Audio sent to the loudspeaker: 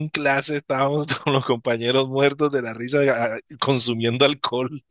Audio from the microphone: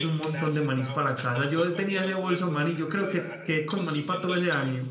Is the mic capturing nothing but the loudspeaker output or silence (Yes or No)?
No